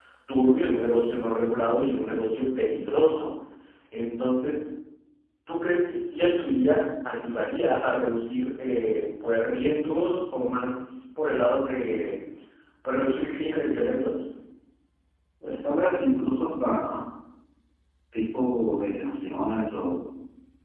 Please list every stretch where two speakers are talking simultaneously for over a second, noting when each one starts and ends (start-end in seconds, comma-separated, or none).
none